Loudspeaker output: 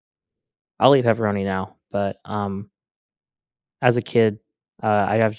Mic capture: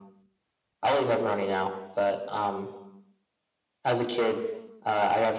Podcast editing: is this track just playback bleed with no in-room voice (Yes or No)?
Yes